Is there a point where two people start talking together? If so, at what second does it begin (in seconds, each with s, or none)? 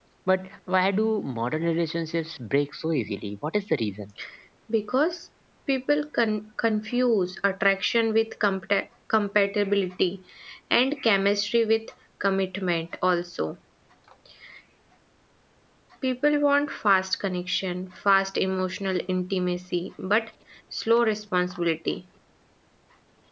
none